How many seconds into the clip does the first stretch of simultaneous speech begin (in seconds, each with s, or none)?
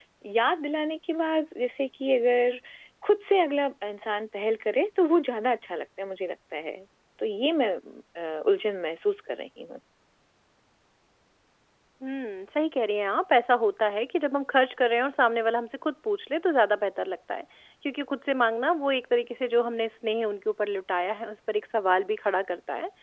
none